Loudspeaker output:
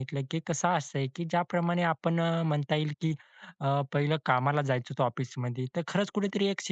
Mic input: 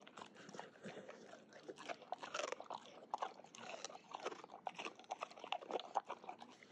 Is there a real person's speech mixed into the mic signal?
No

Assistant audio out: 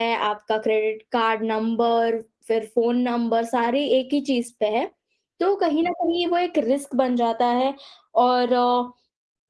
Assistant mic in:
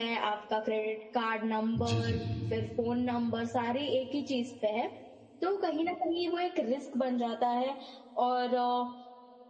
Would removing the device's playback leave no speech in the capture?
No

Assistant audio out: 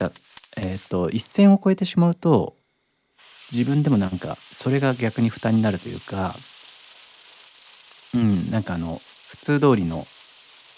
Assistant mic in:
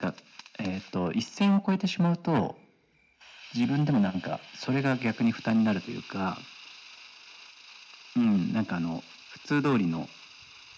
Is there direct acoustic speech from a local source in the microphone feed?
No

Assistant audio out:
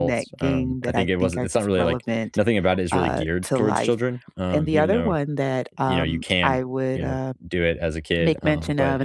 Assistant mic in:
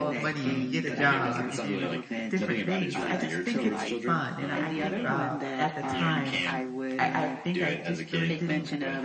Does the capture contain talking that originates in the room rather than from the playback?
Yes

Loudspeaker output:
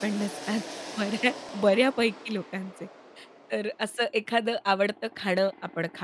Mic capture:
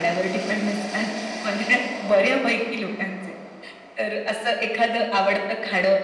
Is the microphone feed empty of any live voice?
Yes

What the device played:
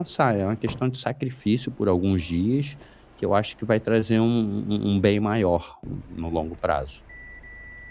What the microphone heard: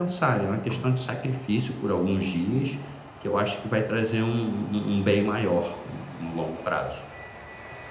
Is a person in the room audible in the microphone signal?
No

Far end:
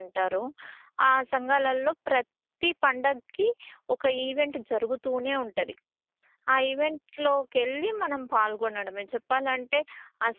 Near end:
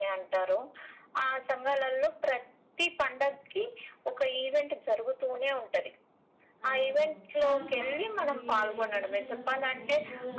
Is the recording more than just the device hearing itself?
Yes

